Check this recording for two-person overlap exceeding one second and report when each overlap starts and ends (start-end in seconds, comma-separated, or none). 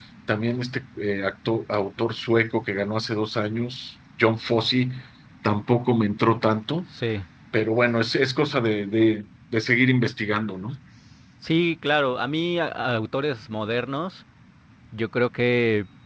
none